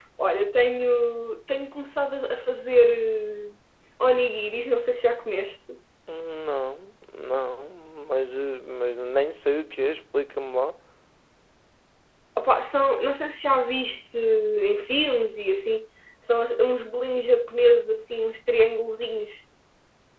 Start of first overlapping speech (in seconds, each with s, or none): none